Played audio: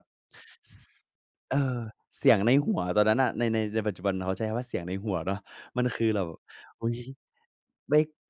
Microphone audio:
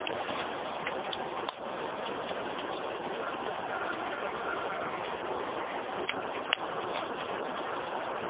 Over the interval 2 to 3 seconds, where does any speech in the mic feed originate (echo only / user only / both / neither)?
neither